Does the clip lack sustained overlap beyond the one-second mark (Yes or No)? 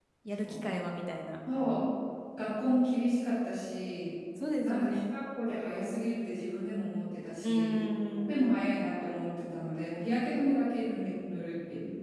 Yes